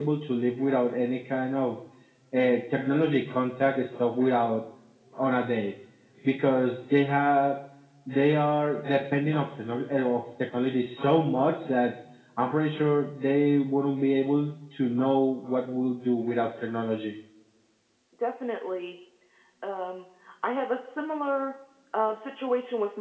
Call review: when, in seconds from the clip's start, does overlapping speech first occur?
none

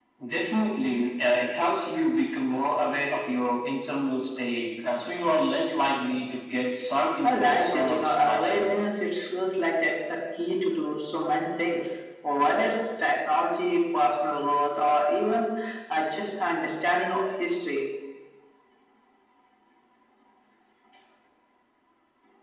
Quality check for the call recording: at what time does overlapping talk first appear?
7.2 s

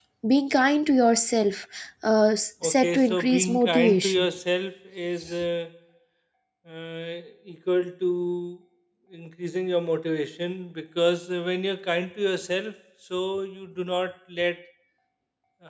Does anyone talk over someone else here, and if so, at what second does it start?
2.6 s

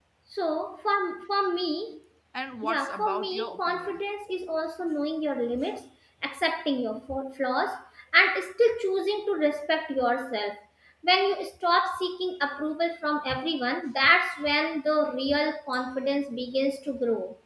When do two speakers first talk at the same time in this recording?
2.6 s

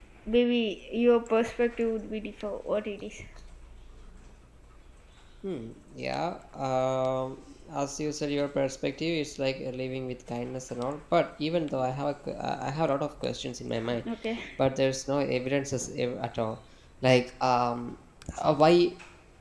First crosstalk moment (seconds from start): none

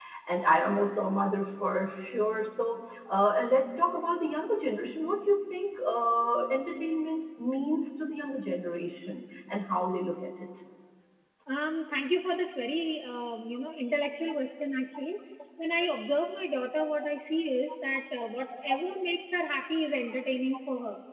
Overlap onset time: none

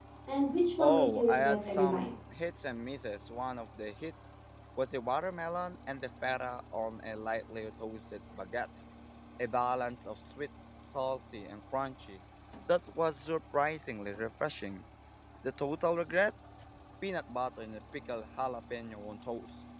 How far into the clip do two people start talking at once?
0.8 s

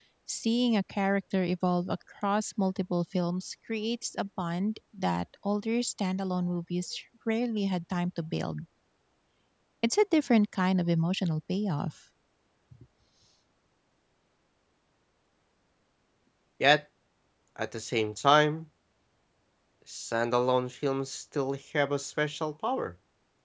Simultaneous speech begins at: none

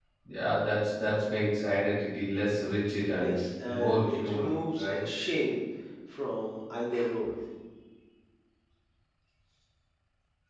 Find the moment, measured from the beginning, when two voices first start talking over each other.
3.2 s

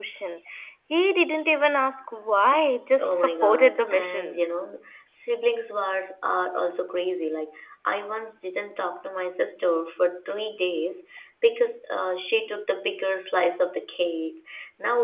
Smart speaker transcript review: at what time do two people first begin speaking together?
3.0 s

